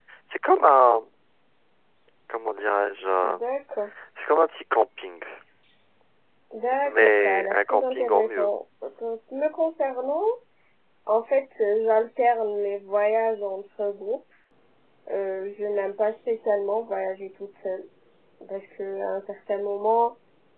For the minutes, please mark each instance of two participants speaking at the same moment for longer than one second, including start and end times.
6.8-8.5

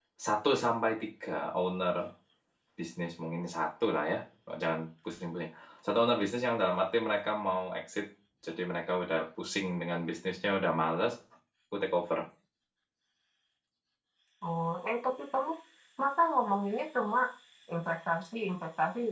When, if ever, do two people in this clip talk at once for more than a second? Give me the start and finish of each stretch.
none

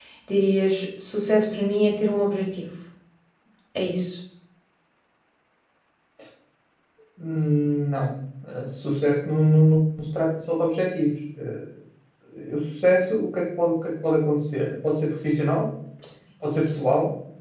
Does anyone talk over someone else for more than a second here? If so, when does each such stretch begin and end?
none

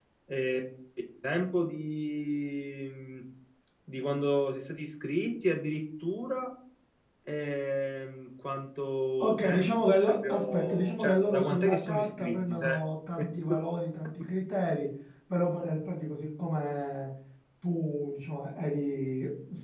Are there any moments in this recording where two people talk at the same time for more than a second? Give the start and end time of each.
9.2-12.8

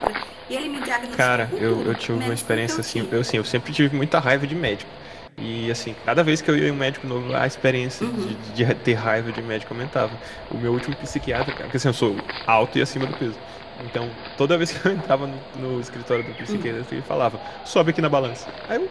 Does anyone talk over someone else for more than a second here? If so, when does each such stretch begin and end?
1.1-3.1

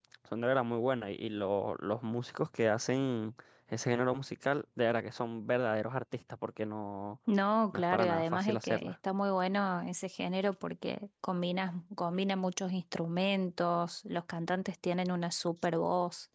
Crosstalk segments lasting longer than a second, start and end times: 7.7-8.9

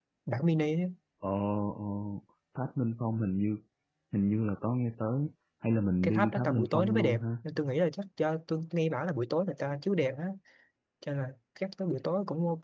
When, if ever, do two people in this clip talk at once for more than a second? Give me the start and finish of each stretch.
6.0-7.2

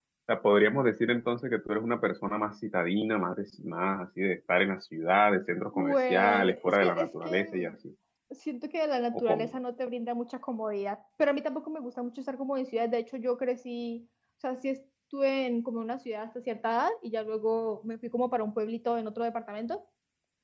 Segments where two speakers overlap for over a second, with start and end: 5.7-7.8

